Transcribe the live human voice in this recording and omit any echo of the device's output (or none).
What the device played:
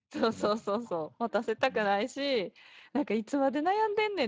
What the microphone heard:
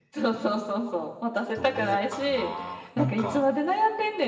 どうかな。なんか、